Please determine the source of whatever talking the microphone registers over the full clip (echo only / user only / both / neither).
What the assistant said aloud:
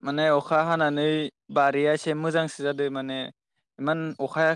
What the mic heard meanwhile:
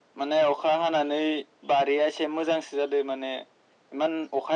echo only